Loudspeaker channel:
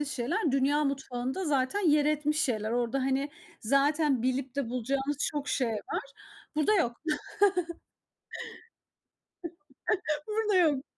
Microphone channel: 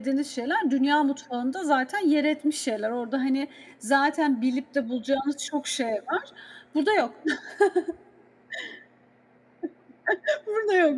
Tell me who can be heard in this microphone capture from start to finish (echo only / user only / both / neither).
echo only